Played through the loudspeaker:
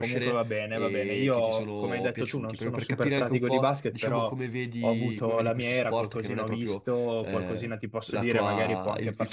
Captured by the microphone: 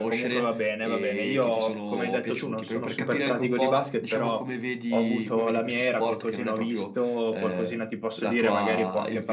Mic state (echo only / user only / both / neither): echo only